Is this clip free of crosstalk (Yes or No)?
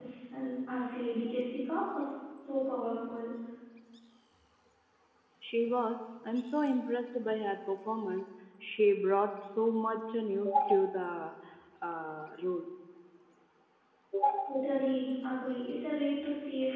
Yes